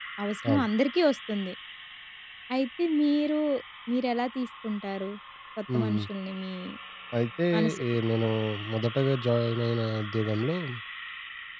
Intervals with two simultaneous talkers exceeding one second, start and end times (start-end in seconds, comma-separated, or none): none